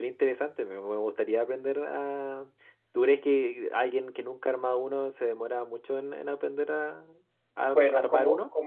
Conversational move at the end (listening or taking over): taking over